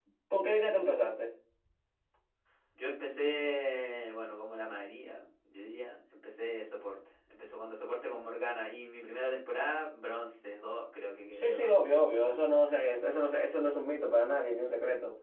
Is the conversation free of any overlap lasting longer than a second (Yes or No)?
No